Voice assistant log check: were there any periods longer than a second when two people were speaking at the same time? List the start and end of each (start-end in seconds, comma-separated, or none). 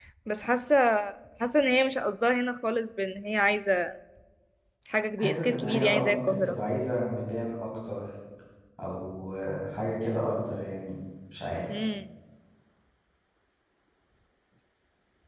5.2-6.6